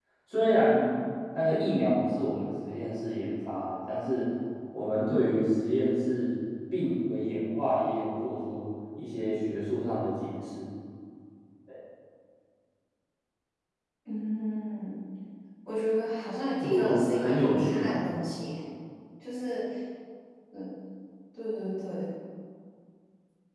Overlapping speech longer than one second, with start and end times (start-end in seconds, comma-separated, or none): 16.6-17.9